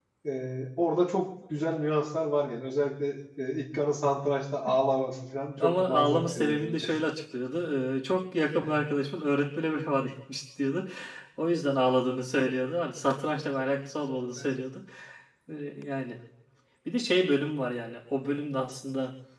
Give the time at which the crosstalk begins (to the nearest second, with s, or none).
6 s